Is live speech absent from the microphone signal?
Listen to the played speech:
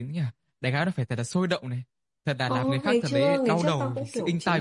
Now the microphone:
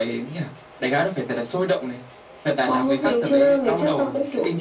Yes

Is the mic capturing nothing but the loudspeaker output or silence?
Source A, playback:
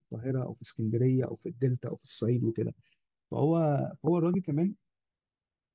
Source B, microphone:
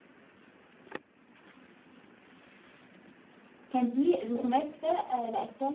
No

